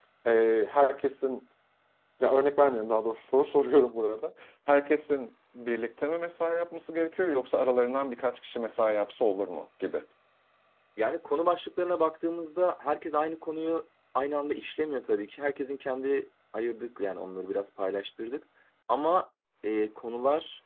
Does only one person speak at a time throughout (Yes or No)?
Yes